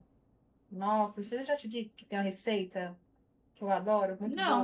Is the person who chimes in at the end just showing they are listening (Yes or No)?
No